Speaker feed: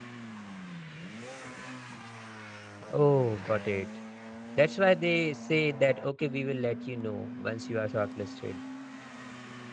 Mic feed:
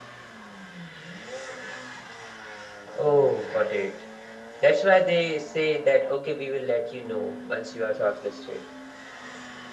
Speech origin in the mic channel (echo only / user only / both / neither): echo only